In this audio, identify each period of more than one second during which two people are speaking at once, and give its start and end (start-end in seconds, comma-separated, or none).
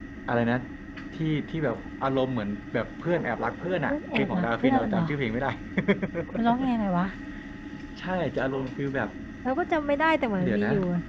3.8-5.1